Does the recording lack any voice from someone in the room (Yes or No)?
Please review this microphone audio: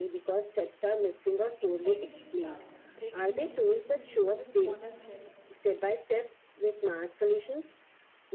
No